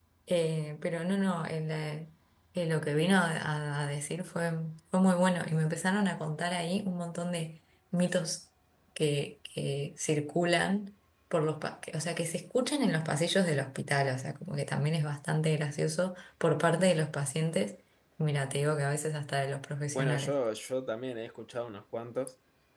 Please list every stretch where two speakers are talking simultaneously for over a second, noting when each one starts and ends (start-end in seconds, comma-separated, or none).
none